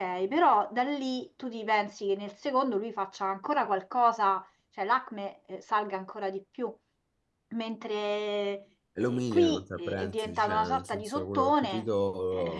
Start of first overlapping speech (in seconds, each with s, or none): 9.0 s